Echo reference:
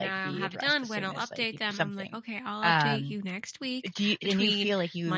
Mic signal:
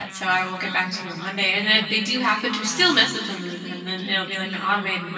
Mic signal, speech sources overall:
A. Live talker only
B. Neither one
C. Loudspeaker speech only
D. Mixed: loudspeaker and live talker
D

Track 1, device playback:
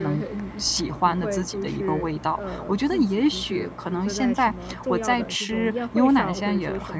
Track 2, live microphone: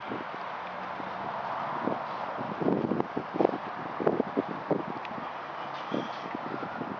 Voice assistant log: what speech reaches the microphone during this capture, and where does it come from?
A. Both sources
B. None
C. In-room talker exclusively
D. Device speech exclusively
B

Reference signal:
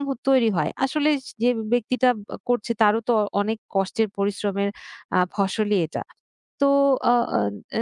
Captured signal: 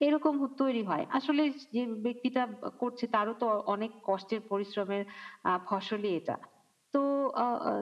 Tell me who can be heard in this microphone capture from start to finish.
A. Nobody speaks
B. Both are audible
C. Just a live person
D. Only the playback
D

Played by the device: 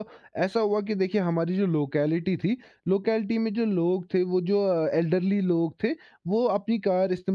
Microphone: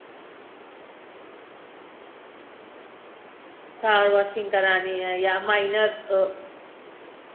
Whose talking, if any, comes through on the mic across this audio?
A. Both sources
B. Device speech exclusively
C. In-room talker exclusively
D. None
C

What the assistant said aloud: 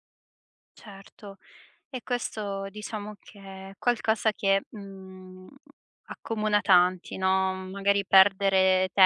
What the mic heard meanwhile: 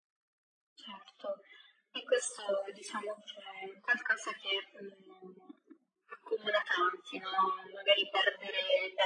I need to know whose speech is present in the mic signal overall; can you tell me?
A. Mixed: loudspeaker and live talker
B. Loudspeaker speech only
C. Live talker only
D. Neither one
B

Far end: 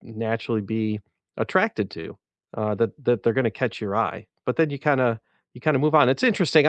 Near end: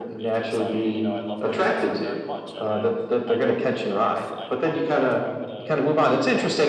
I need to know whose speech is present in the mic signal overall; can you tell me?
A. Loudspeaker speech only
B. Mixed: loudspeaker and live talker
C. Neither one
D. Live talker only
B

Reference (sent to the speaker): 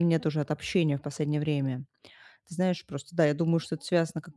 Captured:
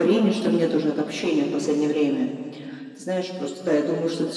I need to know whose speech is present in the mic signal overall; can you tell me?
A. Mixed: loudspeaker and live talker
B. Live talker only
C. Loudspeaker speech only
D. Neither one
C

